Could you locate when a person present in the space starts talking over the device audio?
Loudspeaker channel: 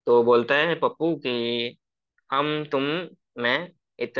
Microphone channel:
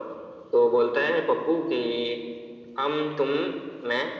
none

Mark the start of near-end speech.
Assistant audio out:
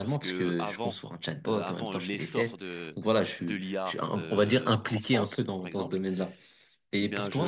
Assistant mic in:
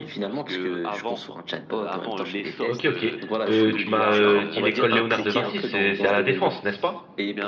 3 s

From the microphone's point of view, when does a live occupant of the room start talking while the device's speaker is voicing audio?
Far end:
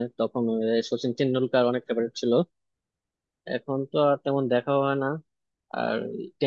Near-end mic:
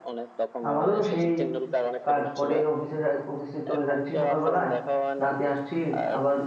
1 s

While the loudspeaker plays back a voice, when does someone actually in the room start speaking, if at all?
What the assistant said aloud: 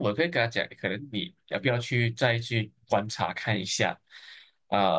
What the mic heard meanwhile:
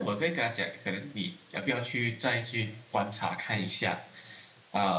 none

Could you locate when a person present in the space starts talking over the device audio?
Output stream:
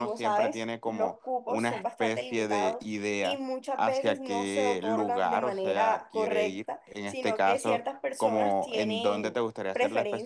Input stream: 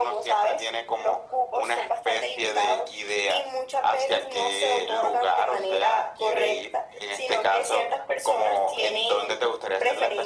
none

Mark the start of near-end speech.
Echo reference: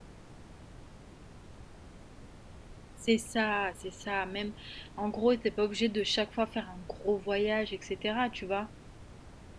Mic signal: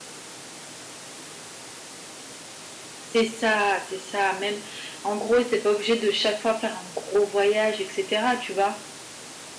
none

